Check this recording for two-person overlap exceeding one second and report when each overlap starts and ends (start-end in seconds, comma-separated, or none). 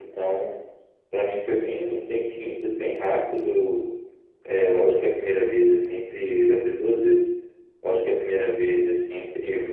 none